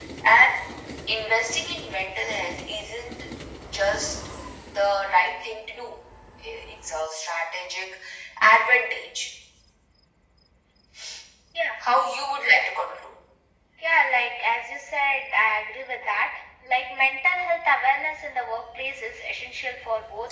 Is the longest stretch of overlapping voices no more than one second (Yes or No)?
Yes